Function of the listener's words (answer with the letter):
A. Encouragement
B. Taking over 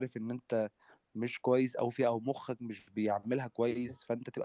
A